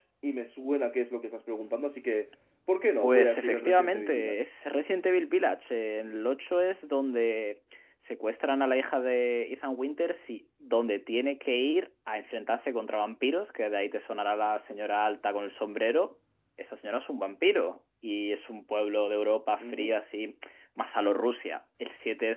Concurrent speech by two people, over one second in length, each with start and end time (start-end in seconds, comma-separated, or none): 3.0-4.4